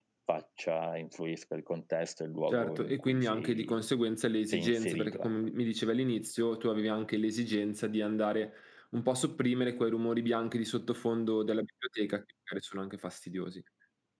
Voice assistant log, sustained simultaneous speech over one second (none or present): present